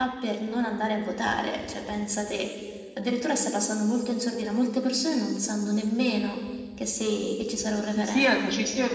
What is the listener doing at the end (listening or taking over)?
taking over